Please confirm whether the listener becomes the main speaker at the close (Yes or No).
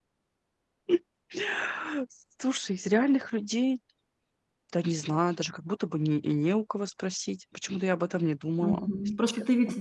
Yes